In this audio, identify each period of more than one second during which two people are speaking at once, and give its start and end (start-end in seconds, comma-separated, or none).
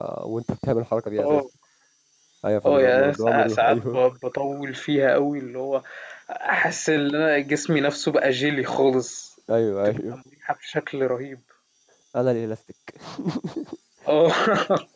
2.6-4.0